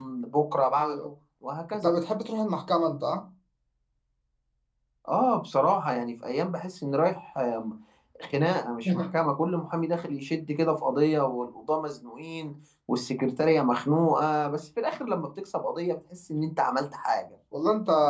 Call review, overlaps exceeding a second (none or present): none